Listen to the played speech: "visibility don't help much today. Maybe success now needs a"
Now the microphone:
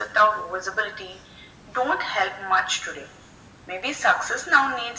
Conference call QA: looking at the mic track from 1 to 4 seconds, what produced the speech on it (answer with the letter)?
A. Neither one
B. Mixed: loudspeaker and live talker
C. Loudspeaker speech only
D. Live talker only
C